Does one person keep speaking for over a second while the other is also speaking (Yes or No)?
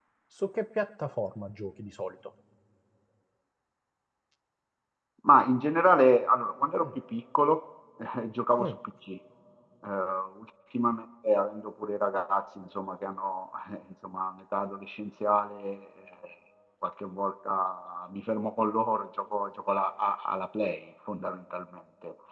No